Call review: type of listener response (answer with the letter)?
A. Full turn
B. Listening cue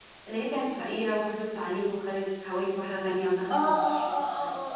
A